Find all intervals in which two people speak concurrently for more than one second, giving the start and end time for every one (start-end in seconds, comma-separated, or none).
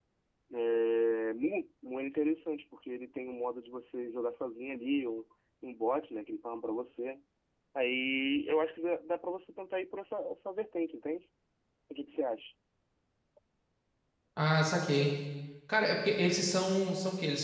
none